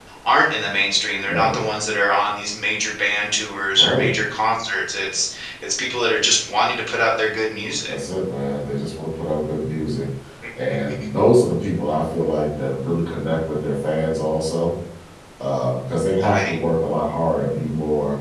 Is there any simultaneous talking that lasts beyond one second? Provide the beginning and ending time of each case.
none

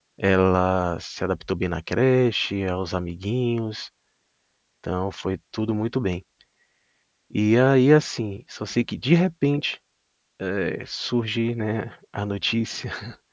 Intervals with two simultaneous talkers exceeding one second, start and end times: none

